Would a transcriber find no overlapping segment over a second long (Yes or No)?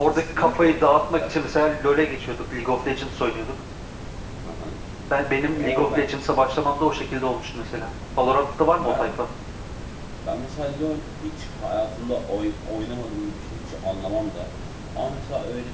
No